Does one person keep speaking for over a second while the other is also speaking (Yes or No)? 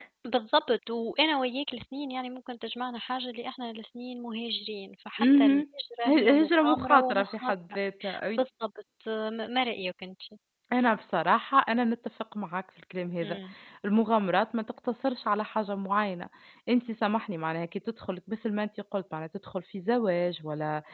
Yes